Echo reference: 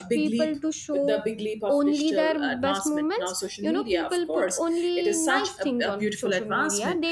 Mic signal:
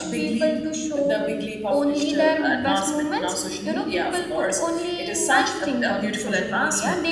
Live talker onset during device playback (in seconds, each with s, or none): none